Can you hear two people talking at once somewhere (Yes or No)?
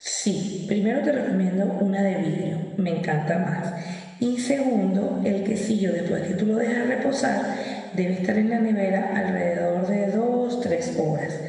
No